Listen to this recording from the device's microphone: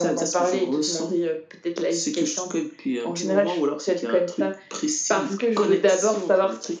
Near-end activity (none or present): none